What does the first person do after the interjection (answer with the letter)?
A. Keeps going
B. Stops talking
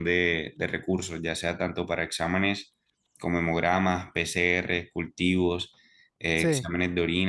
A